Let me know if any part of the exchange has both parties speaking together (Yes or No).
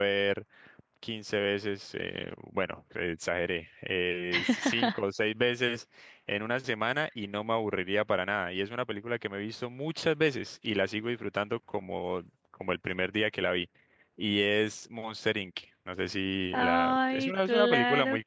Yes